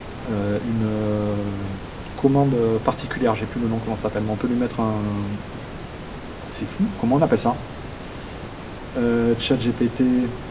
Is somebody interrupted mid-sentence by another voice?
No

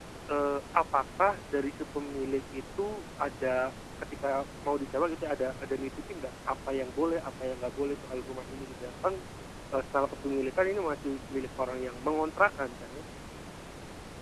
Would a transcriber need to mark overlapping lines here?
No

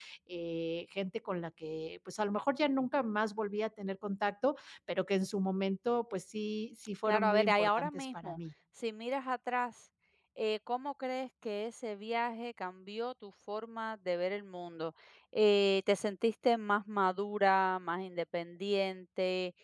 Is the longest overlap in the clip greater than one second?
Yes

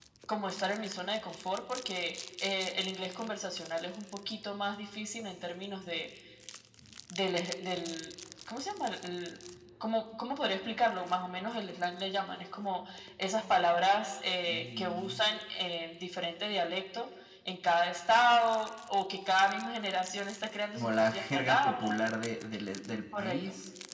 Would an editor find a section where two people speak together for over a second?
Yes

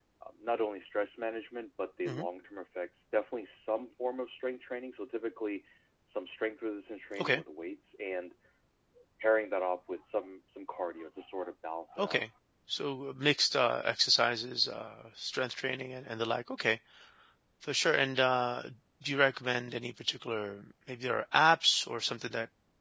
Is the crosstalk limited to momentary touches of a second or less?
Yes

